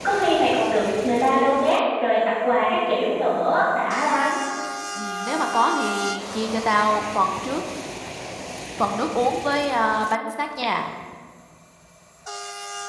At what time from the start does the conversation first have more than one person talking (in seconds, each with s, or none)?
none